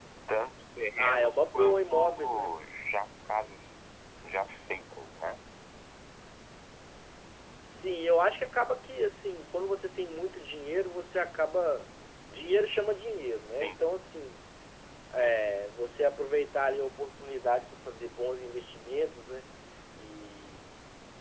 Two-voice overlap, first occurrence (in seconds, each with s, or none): 1.0 s